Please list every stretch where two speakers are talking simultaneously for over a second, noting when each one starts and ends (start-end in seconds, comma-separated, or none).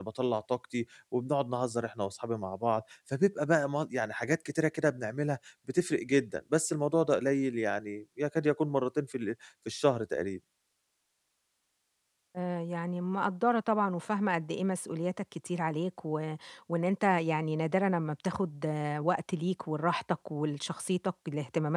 none